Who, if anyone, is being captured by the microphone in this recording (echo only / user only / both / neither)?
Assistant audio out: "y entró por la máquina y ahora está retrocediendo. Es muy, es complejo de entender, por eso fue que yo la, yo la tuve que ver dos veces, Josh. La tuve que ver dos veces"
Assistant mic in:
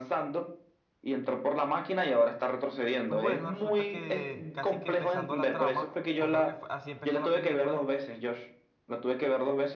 both